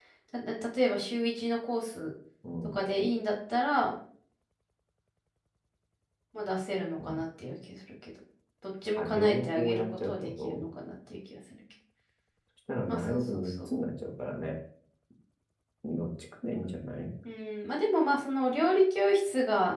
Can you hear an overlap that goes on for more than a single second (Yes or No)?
Yes